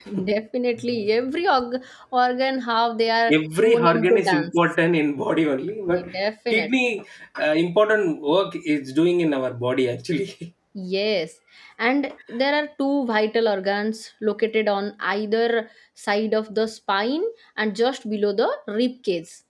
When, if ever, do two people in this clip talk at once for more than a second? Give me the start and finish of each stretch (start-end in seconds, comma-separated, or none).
3.4-4.6